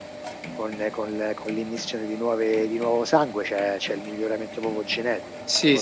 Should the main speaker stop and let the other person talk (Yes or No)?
Yes